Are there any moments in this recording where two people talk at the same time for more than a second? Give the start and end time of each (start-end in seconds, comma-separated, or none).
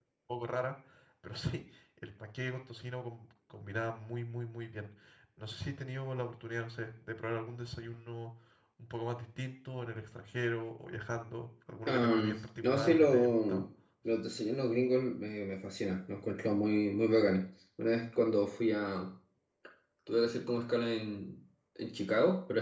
11.9-13.7